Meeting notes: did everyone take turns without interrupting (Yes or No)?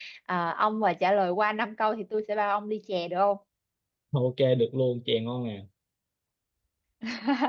Yes